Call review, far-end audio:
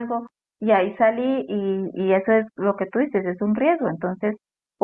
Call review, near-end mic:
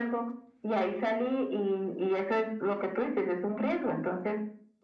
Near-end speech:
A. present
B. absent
B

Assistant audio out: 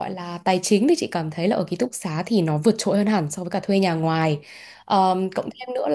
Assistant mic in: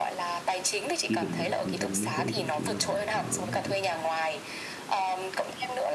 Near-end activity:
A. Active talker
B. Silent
A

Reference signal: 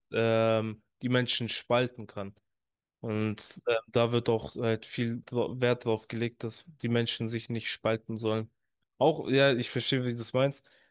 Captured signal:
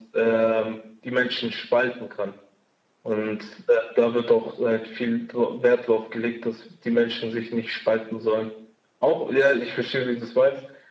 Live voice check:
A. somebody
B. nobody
B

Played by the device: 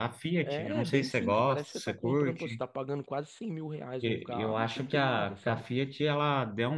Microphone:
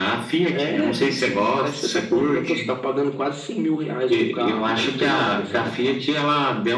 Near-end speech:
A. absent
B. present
B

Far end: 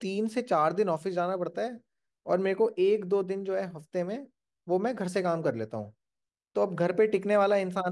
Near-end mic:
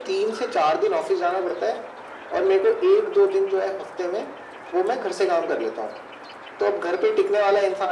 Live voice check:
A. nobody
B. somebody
A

